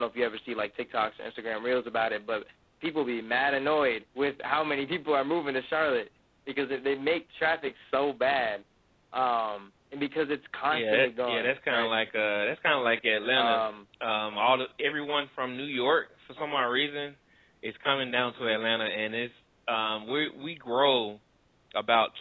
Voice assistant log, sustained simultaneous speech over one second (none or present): present